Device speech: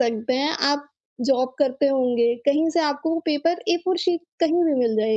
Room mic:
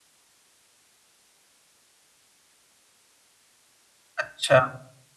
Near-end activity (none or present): present